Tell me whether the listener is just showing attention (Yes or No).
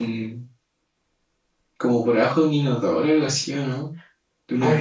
No